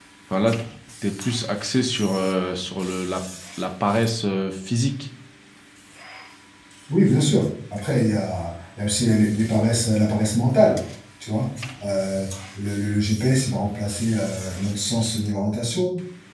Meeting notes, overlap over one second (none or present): none